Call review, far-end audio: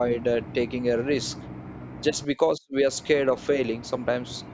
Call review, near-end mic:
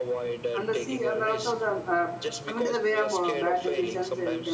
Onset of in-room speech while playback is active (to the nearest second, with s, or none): 1 s